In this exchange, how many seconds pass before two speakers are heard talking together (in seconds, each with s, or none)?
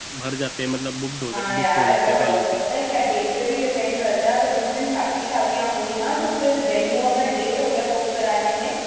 1.3 s